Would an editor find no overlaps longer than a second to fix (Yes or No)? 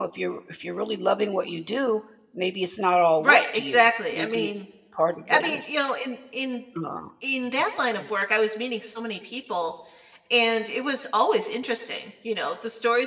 No